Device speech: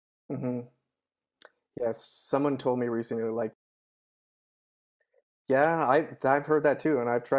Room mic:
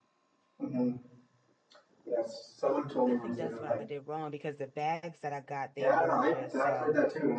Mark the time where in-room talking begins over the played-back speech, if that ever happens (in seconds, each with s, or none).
3.0 s